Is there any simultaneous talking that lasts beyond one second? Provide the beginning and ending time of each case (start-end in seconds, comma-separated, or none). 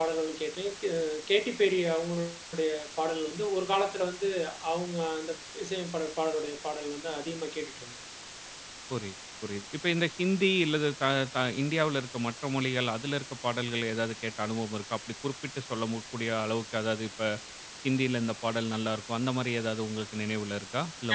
none